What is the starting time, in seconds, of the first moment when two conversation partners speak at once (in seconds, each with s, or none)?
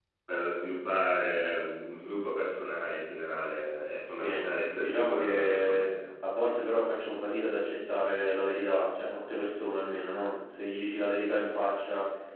4.1 s